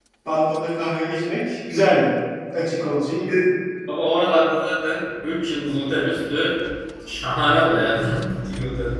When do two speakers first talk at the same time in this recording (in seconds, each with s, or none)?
none